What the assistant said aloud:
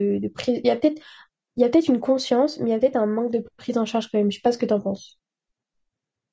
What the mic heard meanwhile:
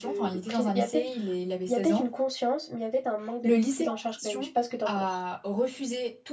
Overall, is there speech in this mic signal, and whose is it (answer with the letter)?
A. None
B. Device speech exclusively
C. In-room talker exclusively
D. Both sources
D